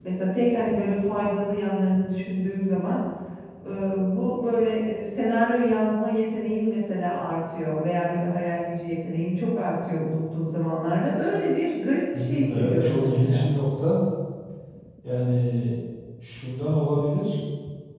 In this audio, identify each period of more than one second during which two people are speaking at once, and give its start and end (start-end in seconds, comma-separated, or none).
12.1-13.5